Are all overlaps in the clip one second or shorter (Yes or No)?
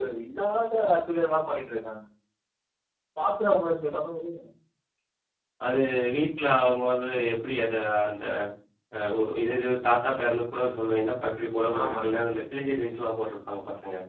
Yes